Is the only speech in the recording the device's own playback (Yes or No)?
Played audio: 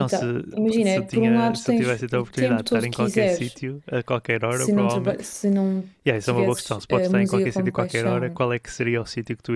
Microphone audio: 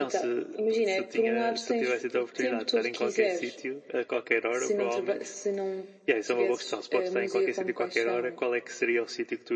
Yes